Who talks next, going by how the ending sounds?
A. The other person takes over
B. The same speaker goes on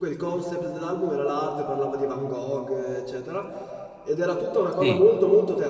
B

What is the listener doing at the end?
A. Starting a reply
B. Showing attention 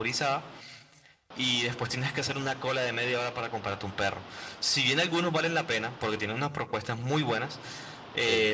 B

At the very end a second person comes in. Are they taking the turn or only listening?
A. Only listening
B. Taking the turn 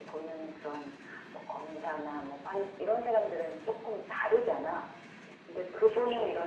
A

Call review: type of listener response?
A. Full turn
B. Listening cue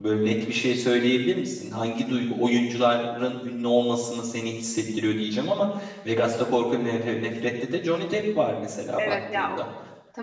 A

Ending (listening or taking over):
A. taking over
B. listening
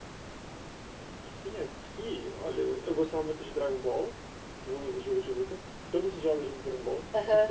A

